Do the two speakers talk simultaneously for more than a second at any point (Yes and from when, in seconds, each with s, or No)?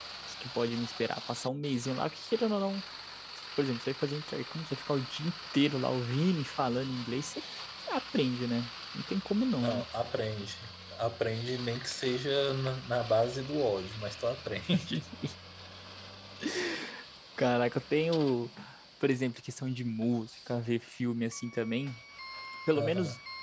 No